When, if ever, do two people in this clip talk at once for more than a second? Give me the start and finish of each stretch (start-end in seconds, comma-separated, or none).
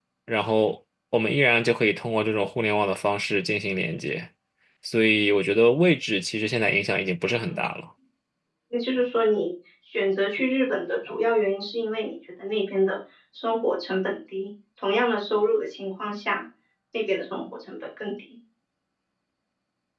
none